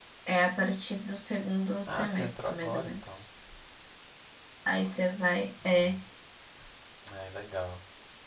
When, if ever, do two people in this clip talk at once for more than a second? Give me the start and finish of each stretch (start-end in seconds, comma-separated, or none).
1.9-3.2